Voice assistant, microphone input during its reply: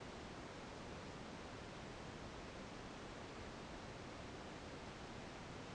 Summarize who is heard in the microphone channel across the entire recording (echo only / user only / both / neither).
neither